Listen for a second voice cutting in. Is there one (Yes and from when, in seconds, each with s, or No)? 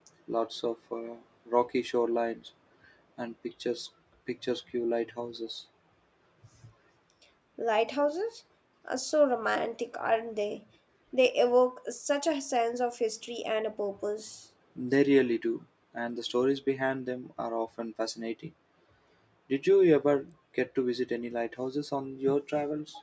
No